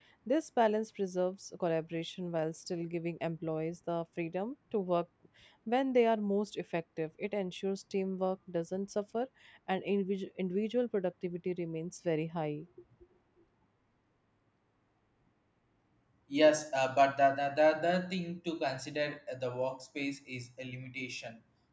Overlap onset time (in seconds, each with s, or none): none